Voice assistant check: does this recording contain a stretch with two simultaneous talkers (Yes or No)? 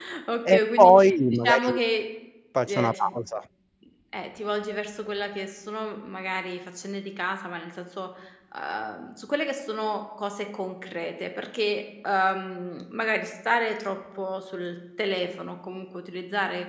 Yes